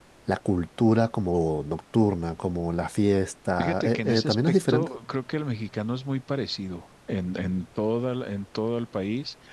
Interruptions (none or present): present